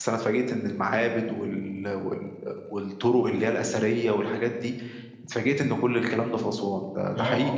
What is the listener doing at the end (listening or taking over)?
taking over